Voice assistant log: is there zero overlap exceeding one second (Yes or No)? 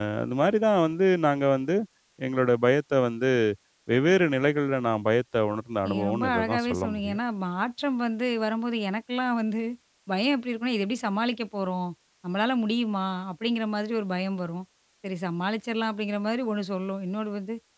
No